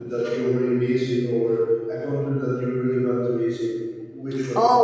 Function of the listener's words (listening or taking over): taking over